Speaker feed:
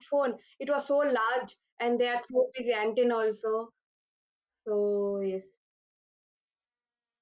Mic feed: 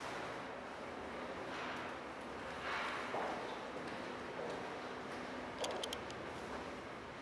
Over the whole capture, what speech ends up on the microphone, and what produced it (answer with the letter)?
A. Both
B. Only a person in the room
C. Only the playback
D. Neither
D